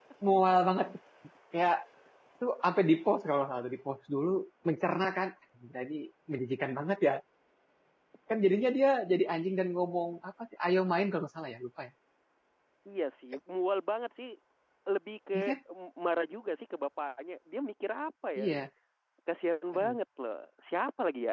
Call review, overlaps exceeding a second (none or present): none